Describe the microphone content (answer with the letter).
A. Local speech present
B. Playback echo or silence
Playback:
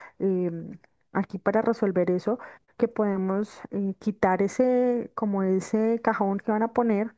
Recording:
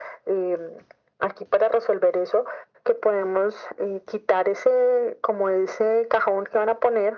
B